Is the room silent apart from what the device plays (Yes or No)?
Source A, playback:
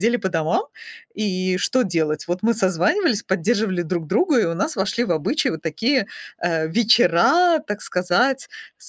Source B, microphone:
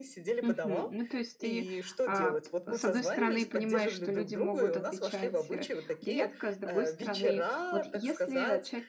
No